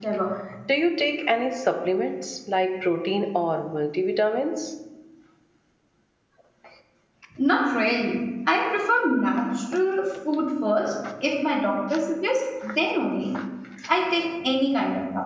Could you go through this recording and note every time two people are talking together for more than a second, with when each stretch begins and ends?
none

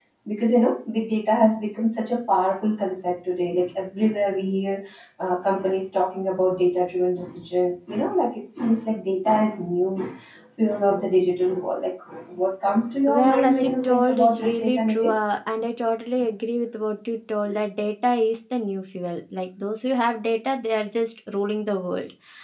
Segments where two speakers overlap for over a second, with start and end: 13.1-15.2

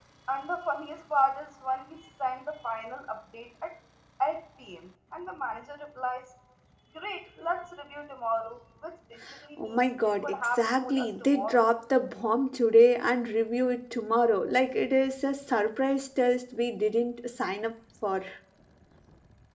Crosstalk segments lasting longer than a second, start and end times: 9.6-11.6

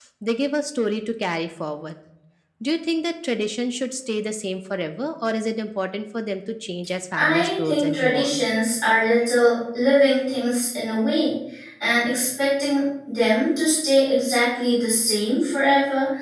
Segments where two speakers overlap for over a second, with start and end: 7.2-8.4

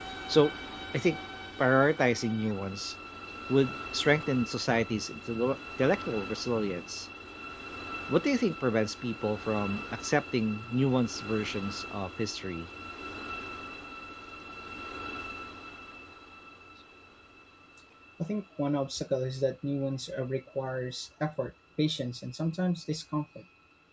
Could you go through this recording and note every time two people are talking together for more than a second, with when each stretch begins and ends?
none

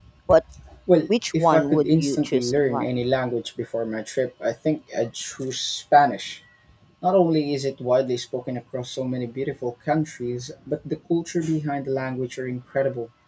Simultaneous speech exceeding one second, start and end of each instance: 1.3-3.0

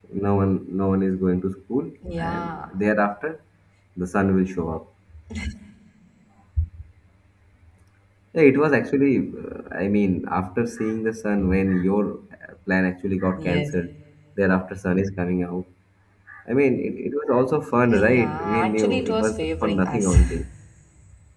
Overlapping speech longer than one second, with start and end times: 17.9-20.2

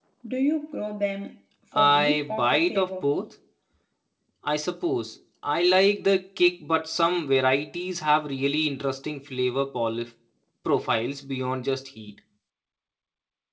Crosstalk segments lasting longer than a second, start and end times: 1.8-3.1

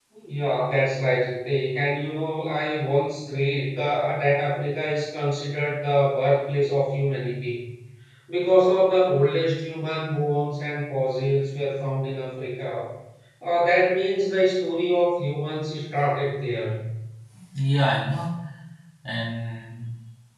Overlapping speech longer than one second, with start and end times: none

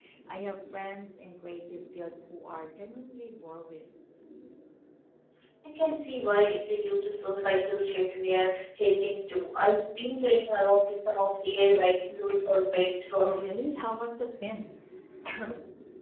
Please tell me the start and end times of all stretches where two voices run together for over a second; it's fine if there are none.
none

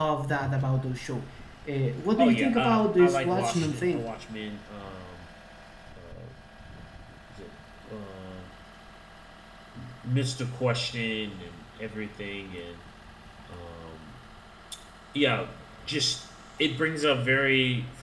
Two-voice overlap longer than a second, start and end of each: 2.2-4.0

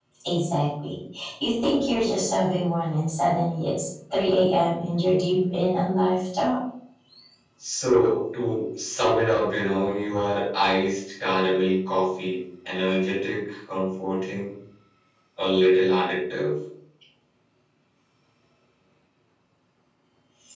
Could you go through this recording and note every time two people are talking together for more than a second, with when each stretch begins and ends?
none

